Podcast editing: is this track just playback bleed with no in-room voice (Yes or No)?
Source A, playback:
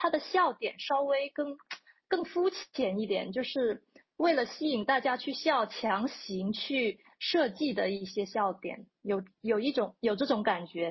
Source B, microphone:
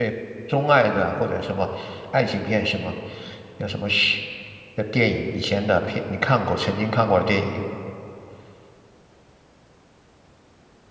No